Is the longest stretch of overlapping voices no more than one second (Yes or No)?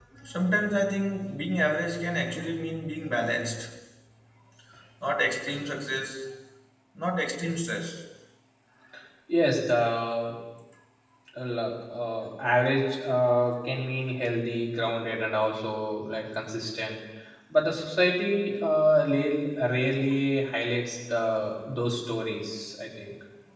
Yes